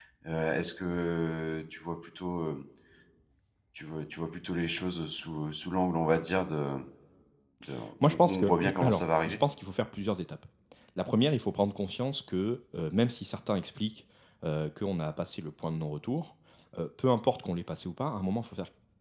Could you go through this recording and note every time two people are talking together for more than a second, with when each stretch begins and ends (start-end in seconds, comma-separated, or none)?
8.1-9.4